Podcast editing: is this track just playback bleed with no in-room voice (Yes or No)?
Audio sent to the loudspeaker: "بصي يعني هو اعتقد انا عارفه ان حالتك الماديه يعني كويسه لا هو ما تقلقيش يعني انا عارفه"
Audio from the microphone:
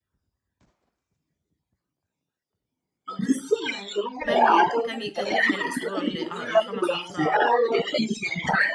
No